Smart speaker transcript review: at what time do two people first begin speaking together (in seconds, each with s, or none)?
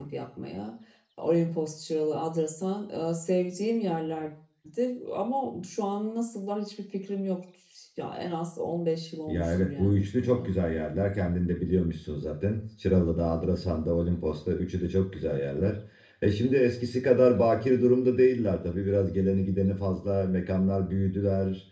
9.3 s